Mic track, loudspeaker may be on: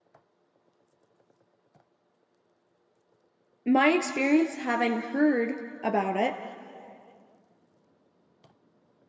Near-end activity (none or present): present